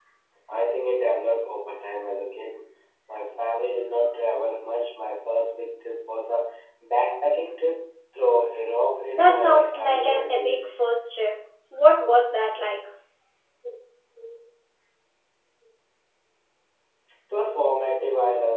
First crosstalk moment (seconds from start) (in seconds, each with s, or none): 9.1 s